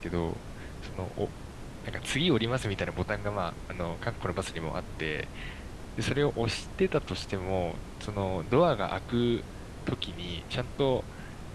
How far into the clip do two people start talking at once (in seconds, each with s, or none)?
none